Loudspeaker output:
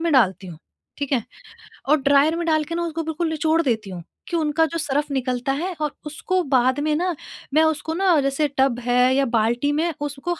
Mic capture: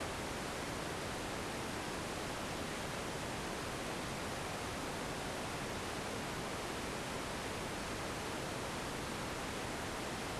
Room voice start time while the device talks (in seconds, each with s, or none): none